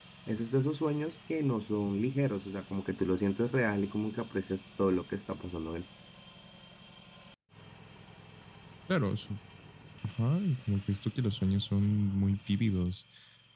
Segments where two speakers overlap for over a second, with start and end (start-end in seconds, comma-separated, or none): none